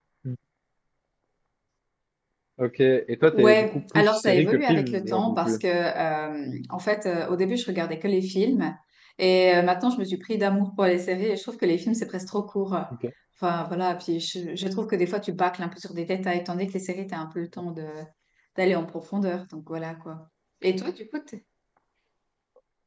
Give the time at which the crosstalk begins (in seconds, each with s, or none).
3.3 s